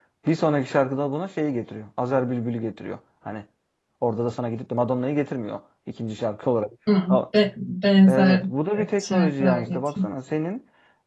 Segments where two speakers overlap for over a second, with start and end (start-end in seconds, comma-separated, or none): 8.8-10.0